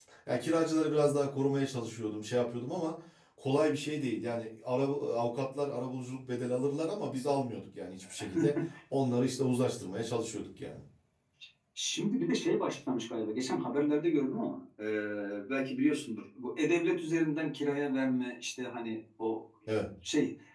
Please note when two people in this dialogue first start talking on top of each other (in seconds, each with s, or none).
none